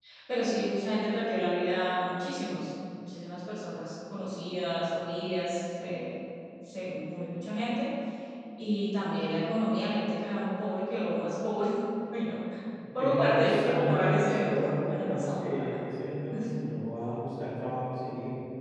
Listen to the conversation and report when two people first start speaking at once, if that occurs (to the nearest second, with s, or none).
13 s